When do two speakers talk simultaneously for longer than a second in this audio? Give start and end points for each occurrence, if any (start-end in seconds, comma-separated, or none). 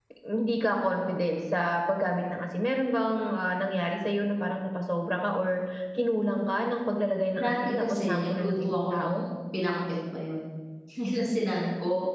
7.3-9.1